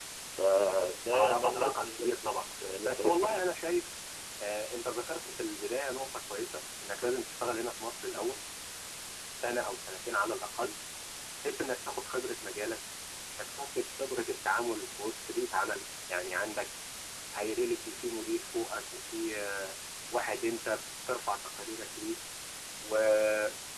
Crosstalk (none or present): present